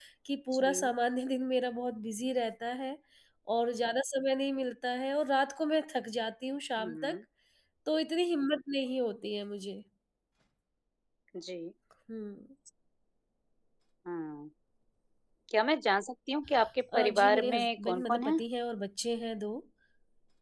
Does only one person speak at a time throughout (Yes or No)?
No